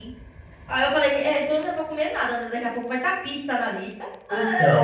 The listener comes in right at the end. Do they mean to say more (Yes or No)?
Yes